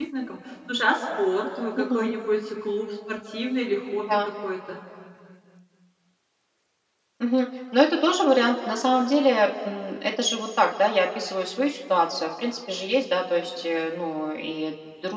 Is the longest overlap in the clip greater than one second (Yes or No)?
No